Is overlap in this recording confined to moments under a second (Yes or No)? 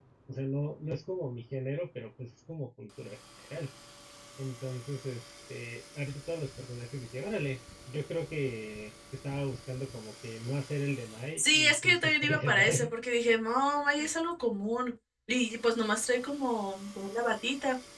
No